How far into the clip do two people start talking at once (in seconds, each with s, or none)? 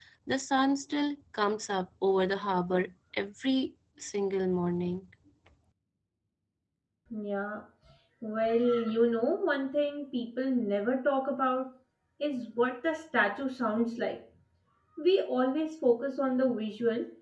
none